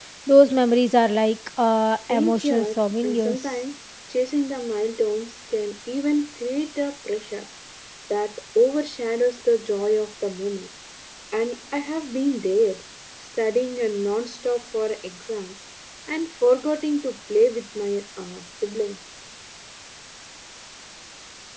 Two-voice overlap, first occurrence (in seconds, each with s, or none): 2.1 s